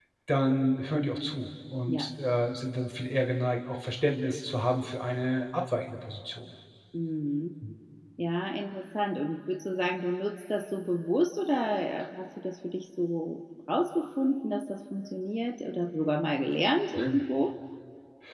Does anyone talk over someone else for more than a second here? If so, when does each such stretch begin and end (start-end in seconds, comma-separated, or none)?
none